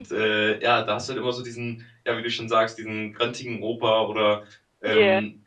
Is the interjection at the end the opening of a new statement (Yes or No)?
No